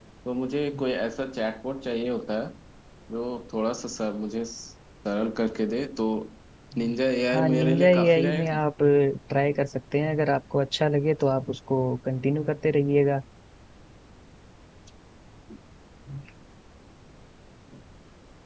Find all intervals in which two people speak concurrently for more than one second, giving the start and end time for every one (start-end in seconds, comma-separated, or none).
7.3-8.6